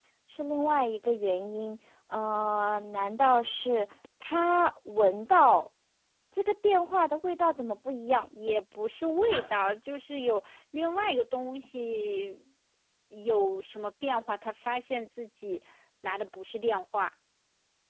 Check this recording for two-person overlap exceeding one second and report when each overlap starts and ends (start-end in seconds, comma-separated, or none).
none